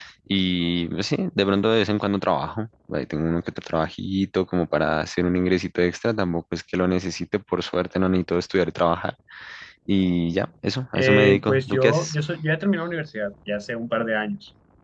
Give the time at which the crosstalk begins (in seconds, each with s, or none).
10.9 s